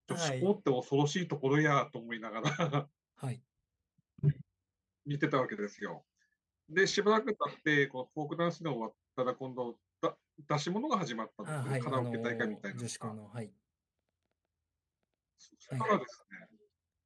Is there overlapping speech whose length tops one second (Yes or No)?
Yes